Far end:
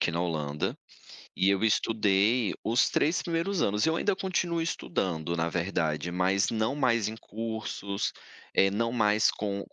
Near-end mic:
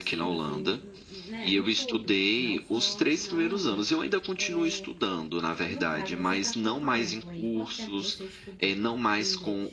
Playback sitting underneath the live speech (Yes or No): No